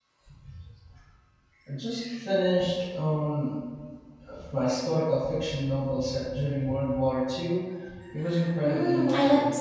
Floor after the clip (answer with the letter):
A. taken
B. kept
A